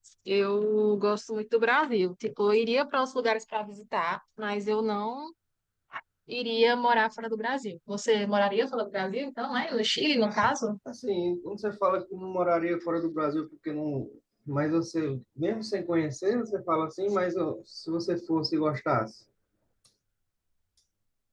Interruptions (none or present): none